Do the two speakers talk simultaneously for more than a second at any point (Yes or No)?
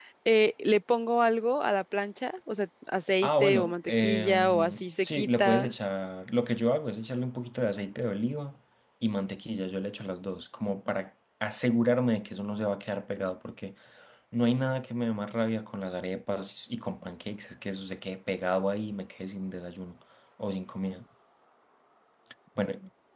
Yes